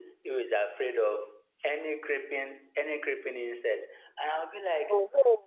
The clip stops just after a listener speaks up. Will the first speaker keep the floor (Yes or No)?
Yes